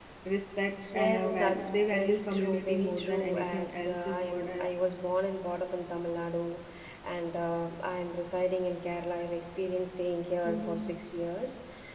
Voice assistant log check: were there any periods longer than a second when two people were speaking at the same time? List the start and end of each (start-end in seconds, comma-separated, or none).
0.9-4.7